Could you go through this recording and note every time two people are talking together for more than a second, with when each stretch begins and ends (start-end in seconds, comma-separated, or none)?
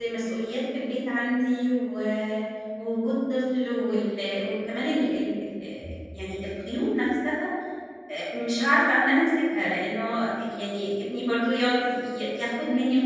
none